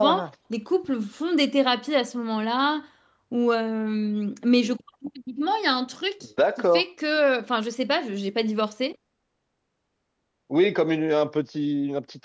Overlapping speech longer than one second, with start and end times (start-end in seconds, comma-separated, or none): none